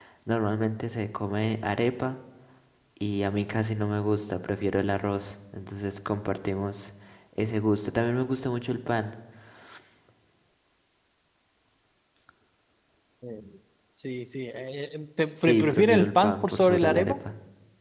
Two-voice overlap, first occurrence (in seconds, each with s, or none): 15.4 s